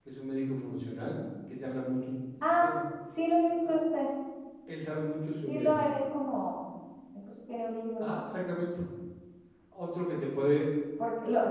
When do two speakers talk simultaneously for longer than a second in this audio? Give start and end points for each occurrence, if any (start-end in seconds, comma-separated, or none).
none